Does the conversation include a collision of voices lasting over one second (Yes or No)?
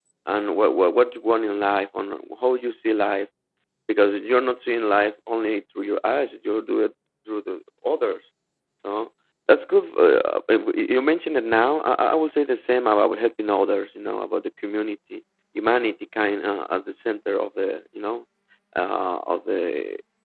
No